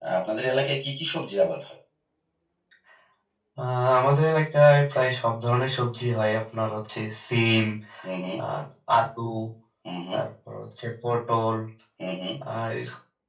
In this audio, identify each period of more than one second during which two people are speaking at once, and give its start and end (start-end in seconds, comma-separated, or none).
none